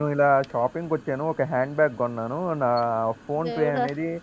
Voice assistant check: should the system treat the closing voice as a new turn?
No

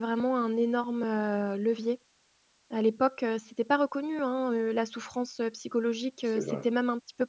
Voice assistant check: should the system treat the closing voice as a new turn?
No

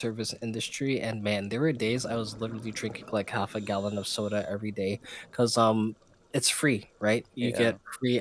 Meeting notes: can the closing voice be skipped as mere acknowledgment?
Yes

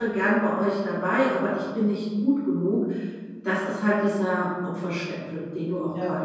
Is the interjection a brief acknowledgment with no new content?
No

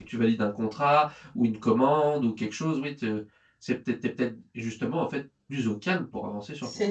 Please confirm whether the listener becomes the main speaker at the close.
Yes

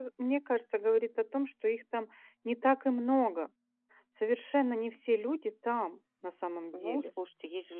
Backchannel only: No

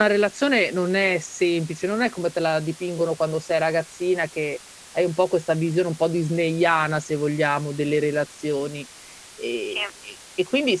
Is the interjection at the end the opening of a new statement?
No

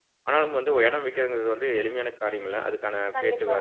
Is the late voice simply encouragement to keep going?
Yes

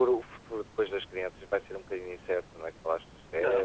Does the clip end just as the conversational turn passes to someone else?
Yes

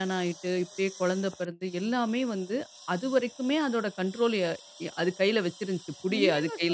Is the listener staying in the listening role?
No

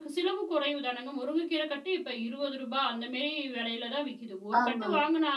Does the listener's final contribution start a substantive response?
No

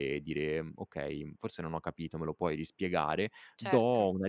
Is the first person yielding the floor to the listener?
No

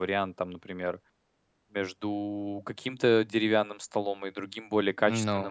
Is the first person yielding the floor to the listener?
No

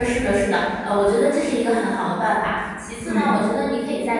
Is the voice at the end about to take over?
No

